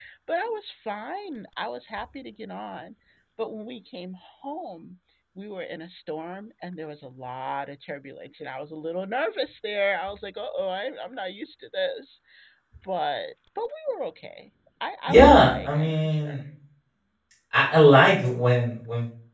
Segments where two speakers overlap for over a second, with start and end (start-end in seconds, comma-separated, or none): 15.1-16.4